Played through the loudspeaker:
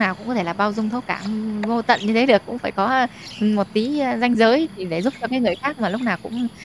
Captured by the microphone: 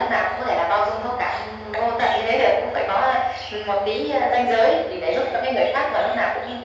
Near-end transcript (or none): none